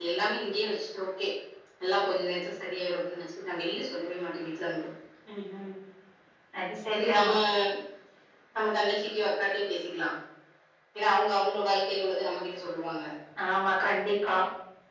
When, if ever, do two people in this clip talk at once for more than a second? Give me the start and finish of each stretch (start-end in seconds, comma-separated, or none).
none